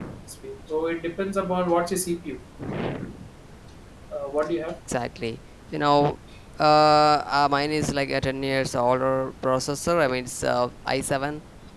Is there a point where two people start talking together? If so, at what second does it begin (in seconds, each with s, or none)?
none